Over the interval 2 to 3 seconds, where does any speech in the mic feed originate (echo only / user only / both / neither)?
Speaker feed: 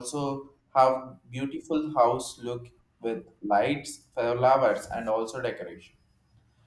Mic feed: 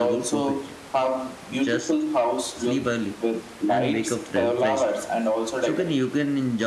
both